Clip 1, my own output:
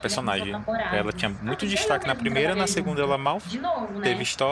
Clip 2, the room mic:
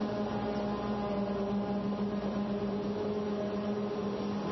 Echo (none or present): none